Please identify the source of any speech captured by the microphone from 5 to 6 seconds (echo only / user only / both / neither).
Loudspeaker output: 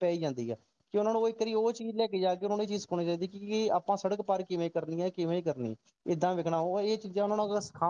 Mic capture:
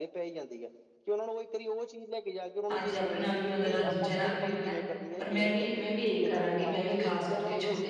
both